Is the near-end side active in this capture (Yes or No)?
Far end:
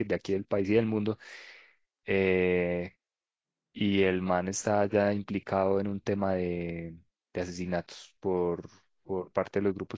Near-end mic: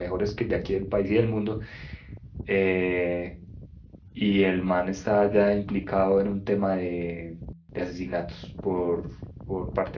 No